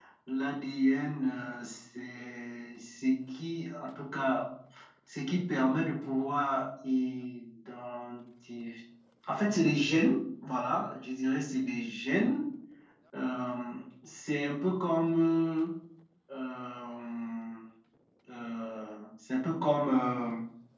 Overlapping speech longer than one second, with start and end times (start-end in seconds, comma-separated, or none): none